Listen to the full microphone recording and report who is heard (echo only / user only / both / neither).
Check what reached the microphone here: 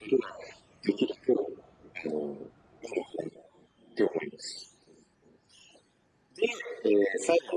echo only